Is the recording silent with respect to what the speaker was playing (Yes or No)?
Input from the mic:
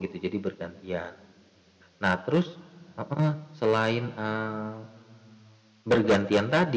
No